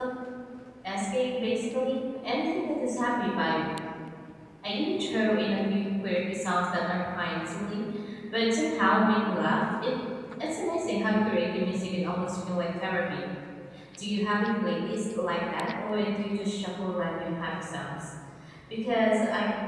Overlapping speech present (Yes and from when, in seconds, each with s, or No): No